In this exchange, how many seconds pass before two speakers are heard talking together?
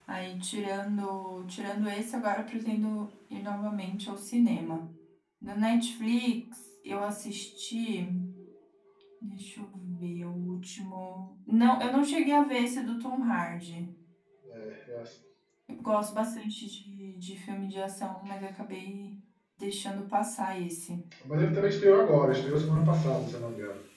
none

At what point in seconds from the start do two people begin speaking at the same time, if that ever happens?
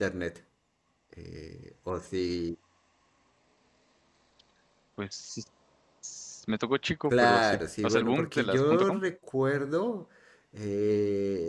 7.1 s

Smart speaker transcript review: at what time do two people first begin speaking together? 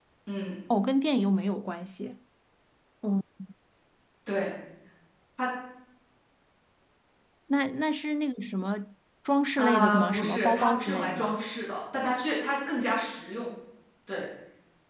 9.6 s

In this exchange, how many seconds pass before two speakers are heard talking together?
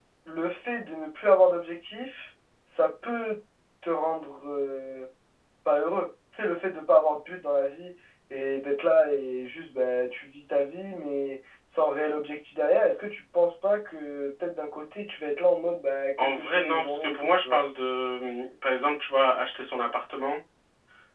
16.2 s

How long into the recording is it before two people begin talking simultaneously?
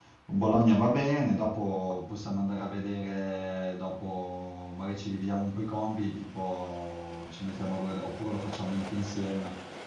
none

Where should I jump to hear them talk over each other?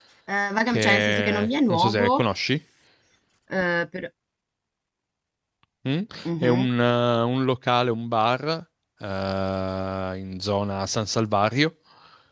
0.7 s

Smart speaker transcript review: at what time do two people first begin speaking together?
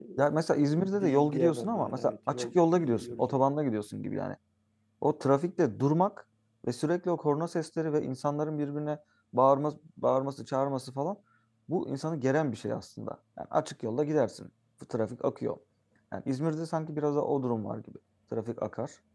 0.7 s

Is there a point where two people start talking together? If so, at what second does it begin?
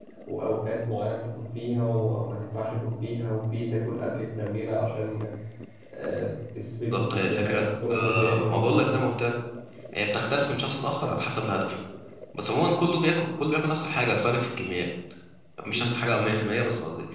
6.9 s

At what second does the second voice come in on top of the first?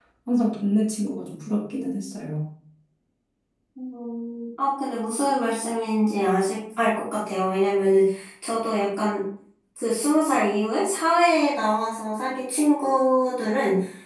none

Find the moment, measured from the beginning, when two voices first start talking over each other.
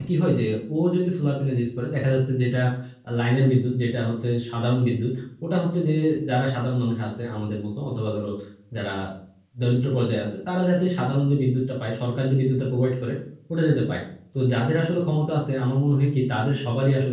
none

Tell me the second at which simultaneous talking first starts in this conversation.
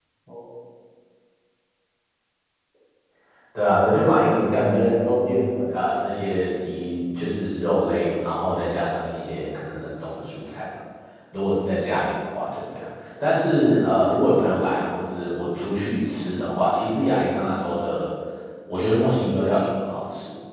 4.0 s

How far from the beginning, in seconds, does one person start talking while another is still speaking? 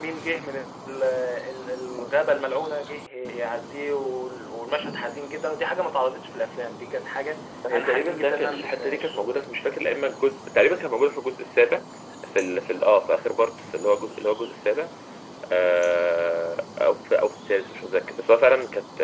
7.6 s

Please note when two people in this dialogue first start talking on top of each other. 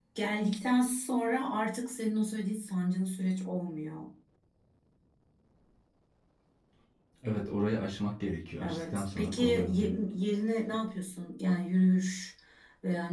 8.6 s

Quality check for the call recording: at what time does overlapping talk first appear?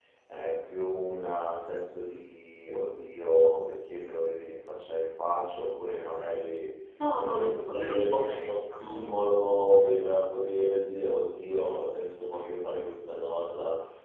7.1 s

